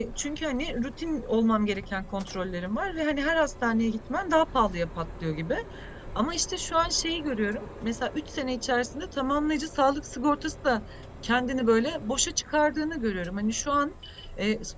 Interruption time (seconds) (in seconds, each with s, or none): none